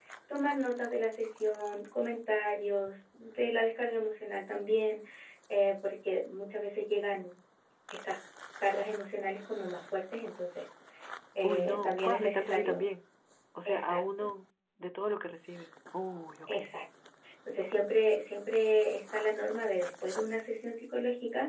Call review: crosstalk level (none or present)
present